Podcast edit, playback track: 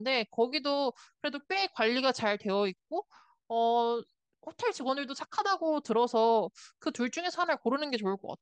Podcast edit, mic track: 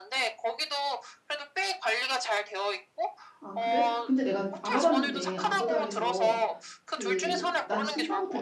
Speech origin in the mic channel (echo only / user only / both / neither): both